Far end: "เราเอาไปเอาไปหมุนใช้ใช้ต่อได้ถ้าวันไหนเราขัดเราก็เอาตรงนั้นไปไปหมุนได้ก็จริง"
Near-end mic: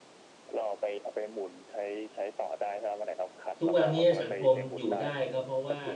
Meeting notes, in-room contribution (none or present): present